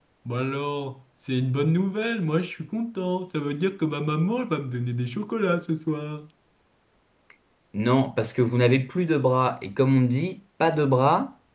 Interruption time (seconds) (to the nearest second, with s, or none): none